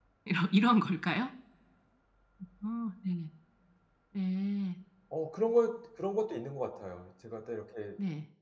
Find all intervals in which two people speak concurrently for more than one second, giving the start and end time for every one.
none

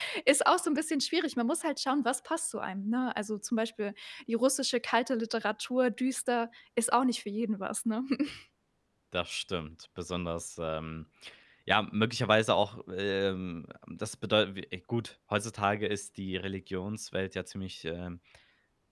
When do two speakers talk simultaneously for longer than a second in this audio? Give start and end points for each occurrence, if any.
none

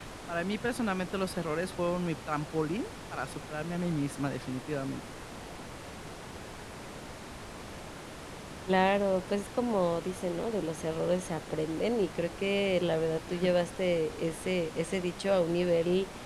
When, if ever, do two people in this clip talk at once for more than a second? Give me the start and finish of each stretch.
none

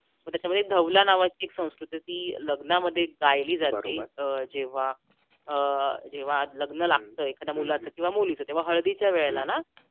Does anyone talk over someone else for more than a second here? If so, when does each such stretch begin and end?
none

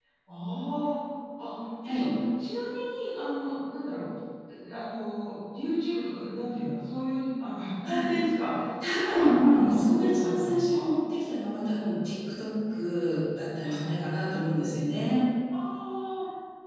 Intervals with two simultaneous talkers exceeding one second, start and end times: 8.8-10.8

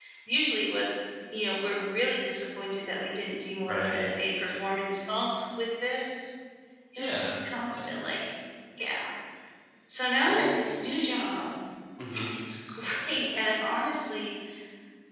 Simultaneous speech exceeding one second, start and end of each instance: none

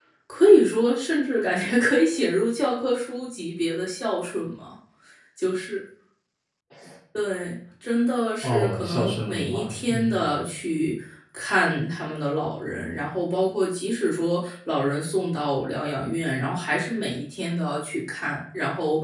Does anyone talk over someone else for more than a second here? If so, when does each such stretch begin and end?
8.4-10.2

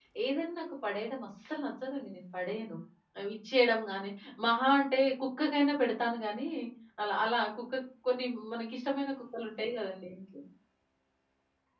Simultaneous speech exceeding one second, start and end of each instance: none

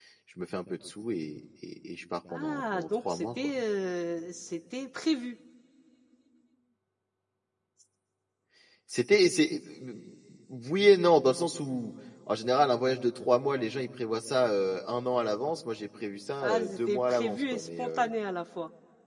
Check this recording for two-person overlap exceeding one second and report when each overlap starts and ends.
2.3-3.5, 16.4-18.1

